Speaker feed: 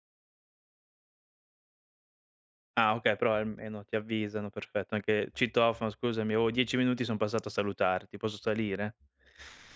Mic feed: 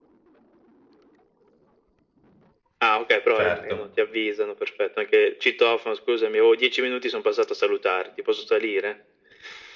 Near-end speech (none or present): present